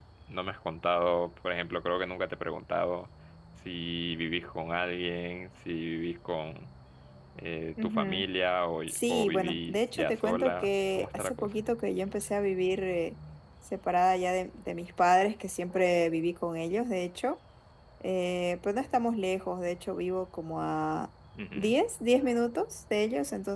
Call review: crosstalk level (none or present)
present